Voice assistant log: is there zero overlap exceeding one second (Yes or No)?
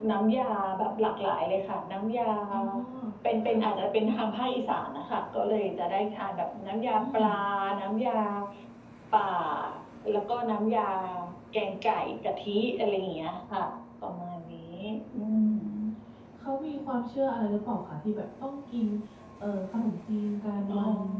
Yes